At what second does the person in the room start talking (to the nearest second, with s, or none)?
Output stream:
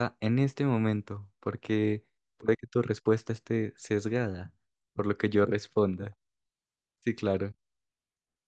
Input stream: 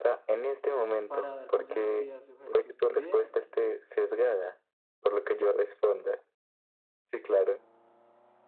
1 s